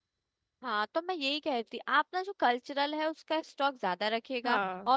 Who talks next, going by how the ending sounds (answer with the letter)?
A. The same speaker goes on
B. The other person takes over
A